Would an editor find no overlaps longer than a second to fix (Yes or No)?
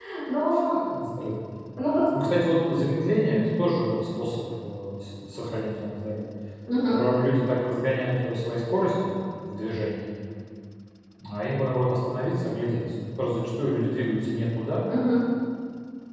Yes